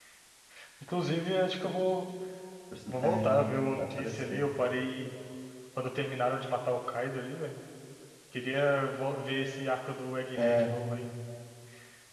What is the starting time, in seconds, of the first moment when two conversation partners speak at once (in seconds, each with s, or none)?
3.0 s